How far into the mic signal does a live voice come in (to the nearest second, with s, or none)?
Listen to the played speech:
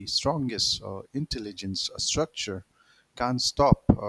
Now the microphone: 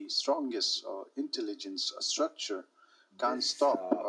3 s